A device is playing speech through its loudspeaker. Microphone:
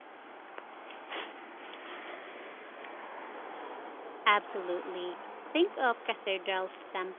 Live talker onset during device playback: 4.2 s

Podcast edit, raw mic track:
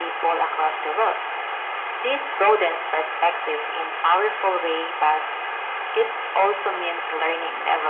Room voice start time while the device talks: none

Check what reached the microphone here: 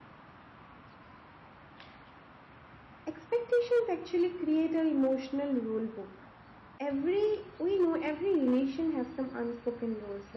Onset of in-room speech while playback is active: 3.1 s

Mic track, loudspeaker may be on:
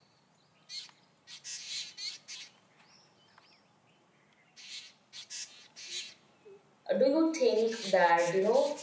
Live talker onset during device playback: 6.9 s

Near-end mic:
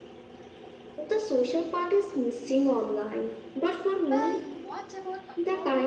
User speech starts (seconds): 4.0 s

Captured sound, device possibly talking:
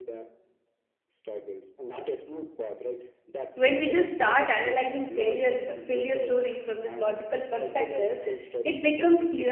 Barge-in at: 3.5 s

